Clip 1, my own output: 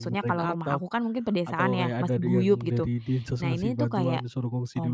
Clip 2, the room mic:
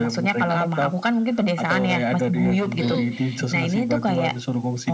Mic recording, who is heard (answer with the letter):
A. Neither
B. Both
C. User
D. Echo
B